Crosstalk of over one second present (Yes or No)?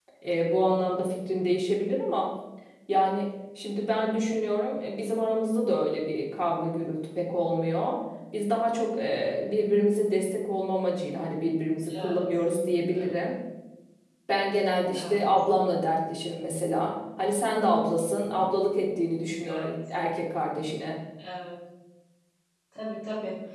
No